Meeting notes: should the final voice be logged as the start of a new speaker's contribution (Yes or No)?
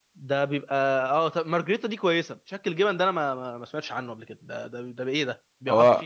Yes